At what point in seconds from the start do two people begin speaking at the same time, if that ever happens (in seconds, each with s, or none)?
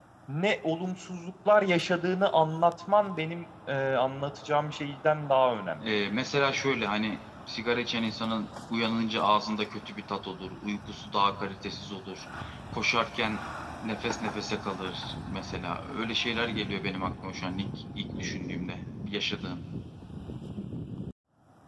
none